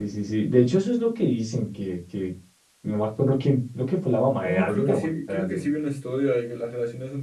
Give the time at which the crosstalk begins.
4 s

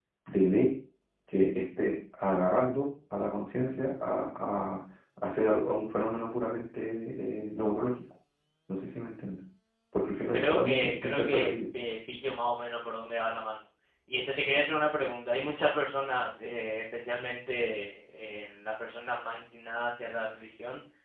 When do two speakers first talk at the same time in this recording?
10 s

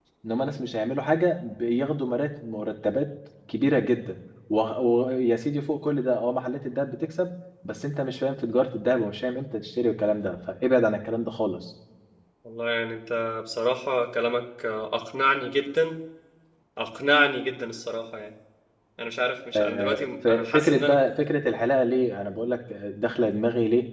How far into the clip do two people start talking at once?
20 s

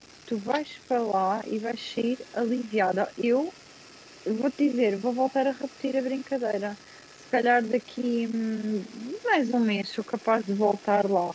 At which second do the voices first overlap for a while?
none

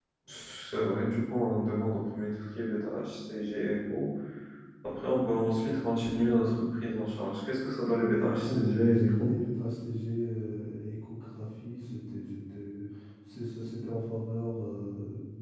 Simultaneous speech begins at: 8 s

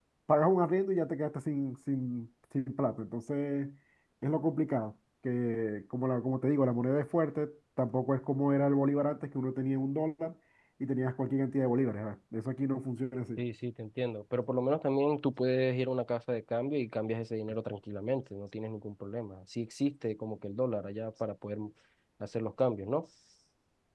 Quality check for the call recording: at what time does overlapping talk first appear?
none

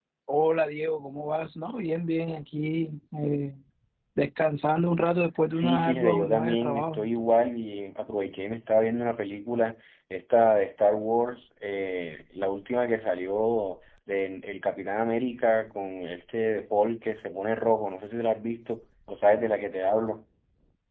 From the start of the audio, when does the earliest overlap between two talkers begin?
6 s

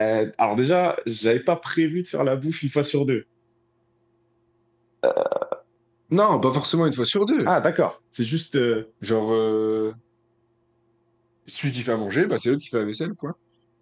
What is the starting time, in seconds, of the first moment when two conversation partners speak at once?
none

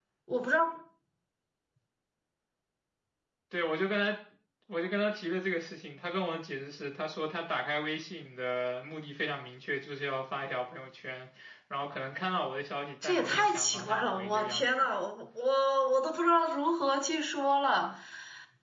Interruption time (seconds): 13 s

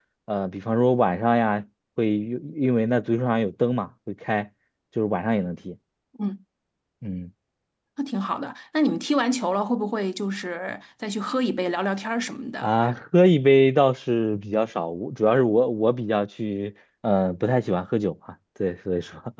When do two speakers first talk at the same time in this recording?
none

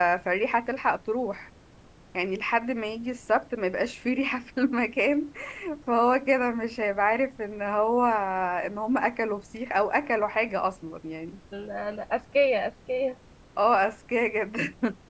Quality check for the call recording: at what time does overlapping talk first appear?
none

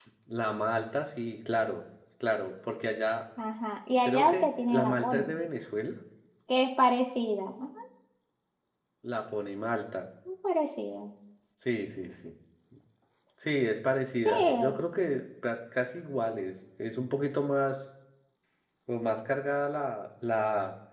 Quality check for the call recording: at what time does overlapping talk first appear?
4 s

